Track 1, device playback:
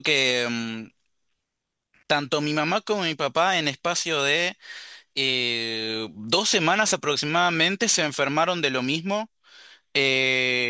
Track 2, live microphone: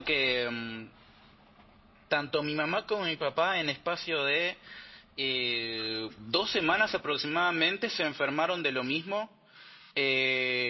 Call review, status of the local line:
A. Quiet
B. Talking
A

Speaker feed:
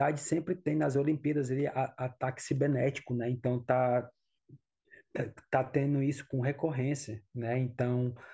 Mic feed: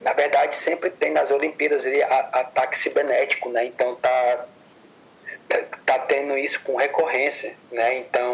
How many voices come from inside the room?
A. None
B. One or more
A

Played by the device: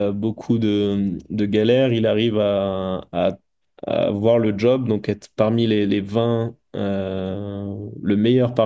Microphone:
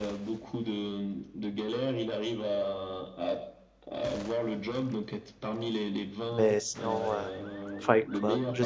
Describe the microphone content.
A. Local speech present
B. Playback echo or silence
A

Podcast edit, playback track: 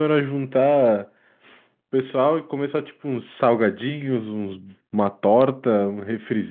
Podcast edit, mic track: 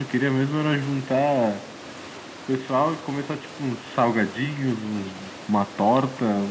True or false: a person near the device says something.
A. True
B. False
B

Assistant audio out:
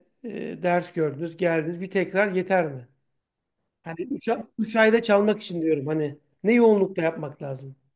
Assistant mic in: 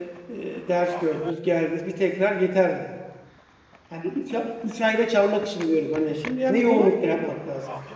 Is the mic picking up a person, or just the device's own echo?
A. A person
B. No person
A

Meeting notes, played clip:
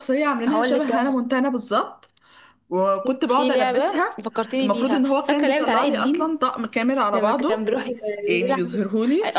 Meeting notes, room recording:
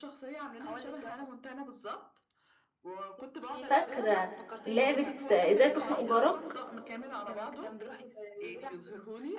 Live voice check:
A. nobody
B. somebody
B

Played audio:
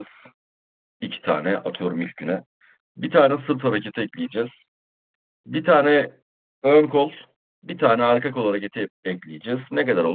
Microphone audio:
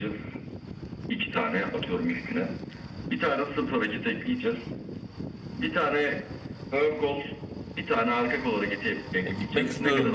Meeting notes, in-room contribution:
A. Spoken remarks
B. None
A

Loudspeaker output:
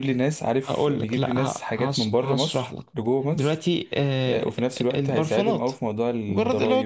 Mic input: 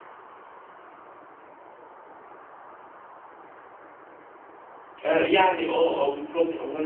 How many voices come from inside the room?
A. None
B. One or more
B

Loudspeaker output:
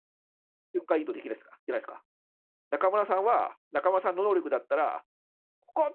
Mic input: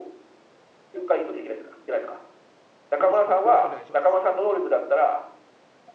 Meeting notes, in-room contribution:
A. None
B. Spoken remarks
B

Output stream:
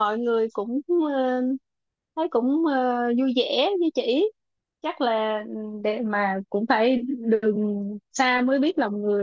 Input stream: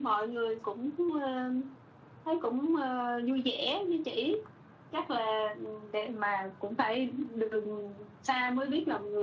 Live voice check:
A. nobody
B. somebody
A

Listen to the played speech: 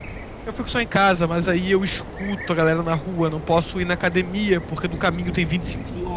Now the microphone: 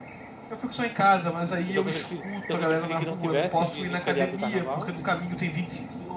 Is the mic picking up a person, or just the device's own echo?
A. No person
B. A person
B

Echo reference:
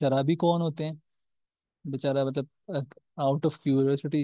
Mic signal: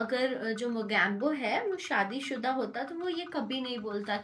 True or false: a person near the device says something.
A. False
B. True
B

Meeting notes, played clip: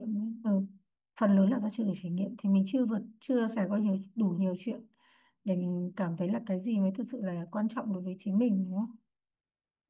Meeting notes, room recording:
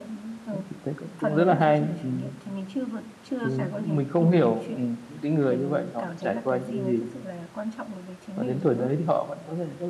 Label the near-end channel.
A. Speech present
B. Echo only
A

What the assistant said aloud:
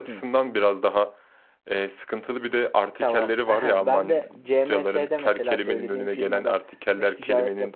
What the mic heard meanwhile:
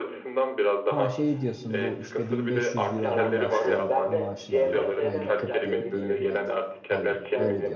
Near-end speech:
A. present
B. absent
A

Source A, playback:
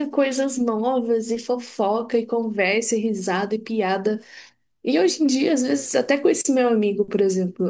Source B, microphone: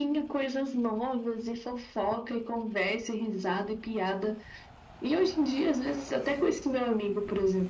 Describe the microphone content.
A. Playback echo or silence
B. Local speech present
A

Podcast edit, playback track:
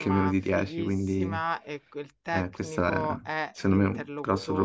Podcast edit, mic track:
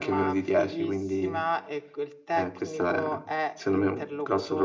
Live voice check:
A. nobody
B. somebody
A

